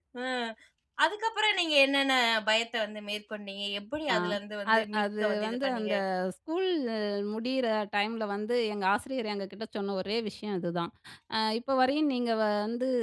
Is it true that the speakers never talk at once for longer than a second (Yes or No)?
No